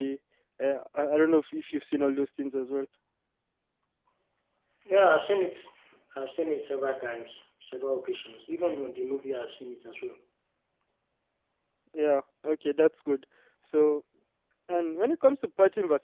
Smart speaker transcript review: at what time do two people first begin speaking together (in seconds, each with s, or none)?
none